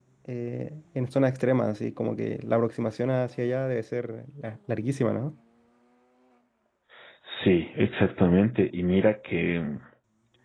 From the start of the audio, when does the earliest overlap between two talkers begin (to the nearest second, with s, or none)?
none